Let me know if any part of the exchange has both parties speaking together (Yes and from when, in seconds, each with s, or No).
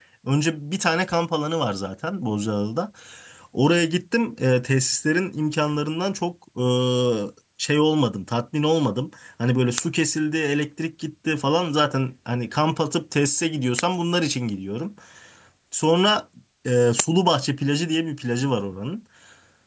No